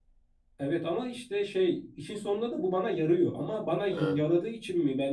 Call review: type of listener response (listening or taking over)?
listening